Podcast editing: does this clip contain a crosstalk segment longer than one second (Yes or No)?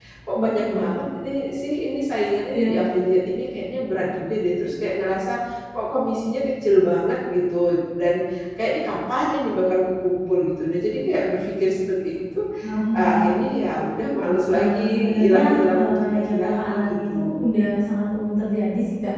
Yes